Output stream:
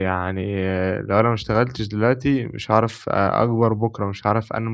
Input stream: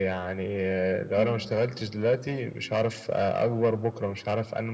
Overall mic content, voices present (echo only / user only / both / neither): both